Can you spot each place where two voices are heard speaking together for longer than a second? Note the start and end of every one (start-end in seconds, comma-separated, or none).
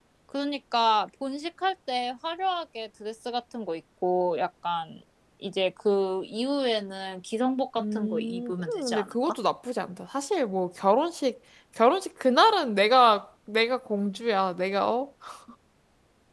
7.8-9.4